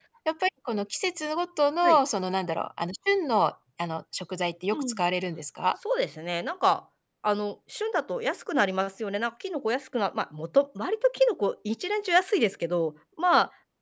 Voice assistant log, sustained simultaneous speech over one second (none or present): none